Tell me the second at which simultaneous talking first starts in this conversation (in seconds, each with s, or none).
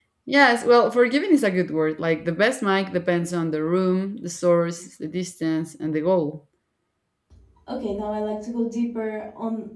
none